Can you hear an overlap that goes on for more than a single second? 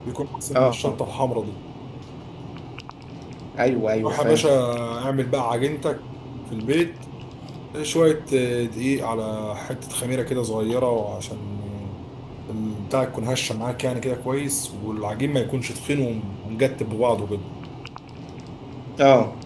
No

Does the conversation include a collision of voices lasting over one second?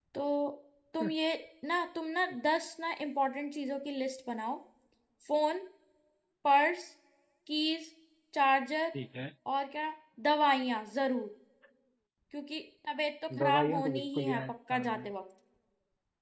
Yes, from 13.3 s

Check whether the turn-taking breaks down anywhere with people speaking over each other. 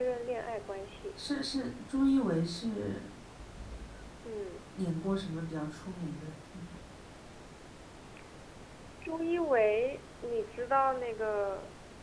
No

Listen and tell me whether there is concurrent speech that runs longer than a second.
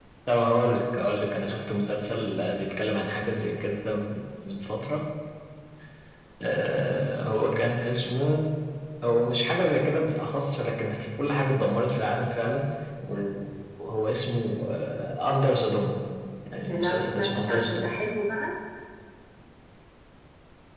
Yes, from 16.6 s

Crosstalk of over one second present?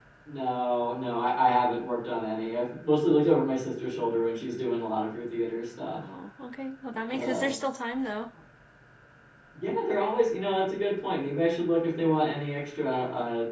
No

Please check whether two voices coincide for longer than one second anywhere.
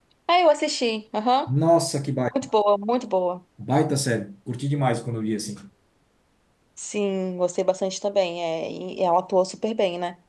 No

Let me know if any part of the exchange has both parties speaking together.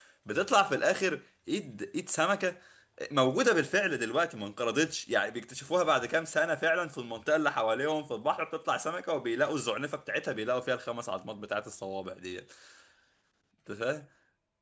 No

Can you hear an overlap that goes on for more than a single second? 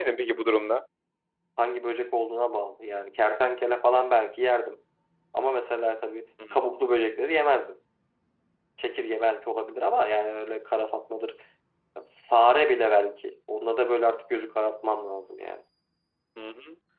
No

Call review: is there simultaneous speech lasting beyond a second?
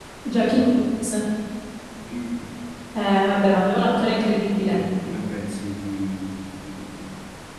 No

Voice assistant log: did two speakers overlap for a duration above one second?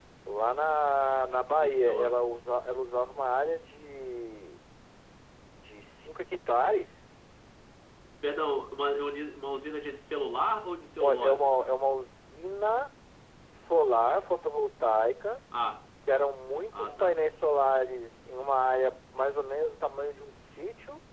No

